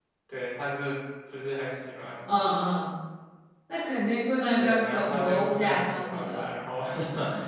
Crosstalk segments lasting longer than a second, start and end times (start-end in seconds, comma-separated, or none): 4.6-6.5